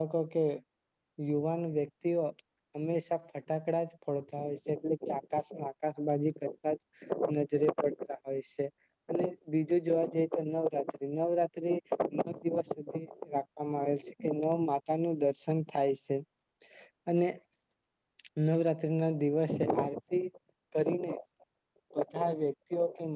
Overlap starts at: none

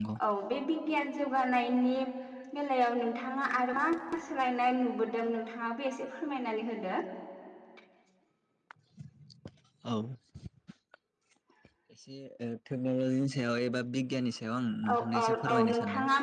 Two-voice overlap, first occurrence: 14.8 s

